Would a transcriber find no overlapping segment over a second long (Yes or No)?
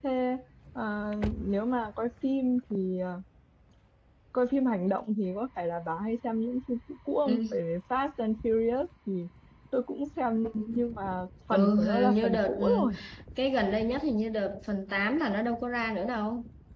No